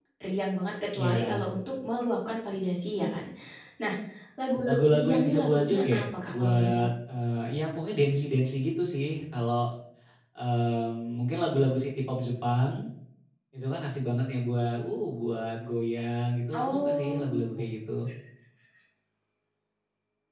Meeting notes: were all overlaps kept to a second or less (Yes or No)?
No